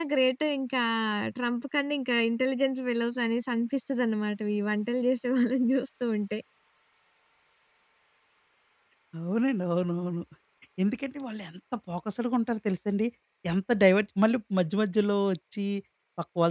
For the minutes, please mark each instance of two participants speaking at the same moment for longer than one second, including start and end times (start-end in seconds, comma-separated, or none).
none